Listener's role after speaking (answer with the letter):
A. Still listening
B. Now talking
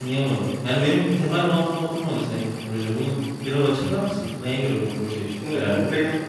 B